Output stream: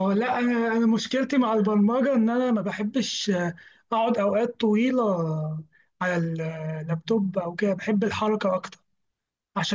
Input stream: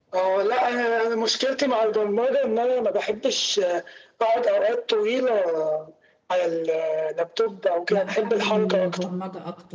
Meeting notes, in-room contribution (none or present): present